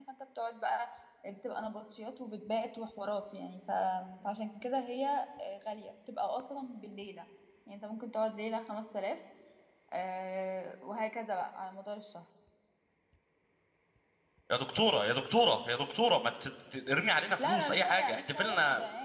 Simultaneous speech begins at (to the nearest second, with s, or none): 17 s